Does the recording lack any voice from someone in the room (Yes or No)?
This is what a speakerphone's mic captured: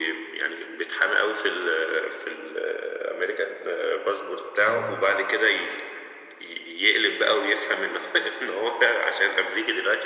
No